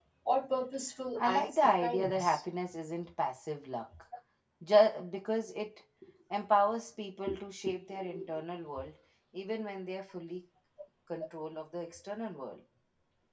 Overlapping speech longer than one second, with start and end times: 1.2-2.4

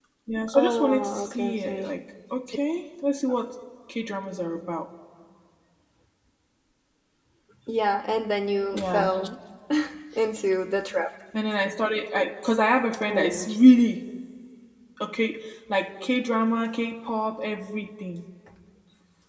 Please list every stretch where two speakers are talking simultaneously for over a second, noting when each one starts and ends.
0.5-1.9

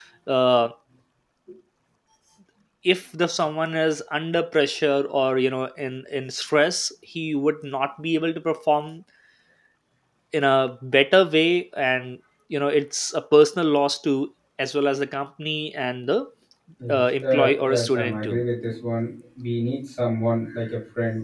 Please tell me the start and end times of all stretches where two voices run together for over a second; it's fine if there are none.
16.9-18.4

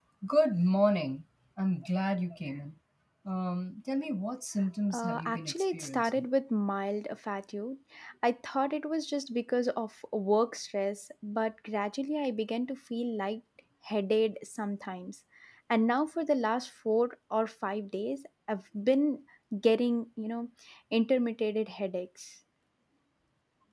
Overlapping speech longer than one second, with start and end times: 4.9-6.2

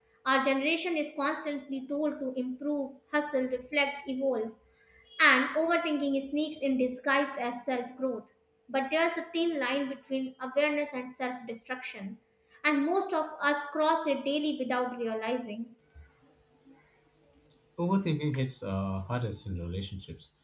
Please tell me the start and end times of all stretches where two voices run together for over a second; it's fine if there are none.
none

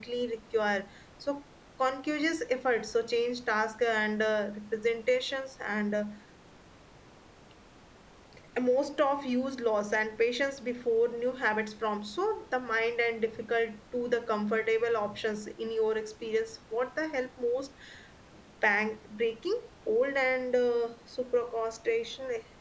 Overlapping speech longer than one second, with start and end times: none

